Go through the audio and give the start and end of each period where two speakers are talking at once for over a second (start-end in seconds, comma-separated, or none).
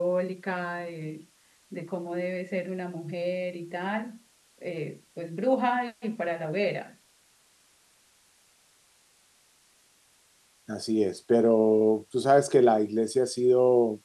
none